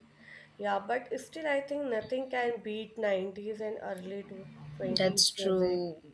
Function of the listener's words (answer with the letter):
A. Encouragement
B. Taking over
B